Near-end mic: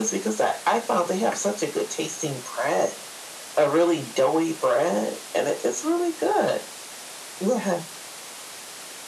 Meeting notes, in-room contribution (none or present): none